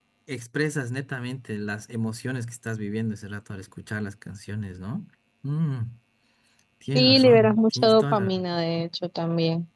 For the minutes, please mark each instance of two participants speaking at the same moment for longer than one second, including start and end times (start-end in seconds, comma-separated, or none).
7.0-8.4